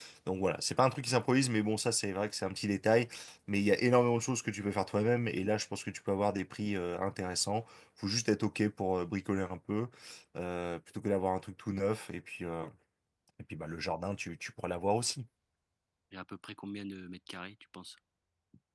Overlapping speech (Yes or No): No